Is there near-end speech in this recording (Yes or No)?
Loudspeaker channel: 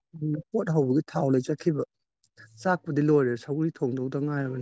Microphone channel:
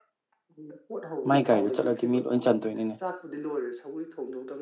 Yes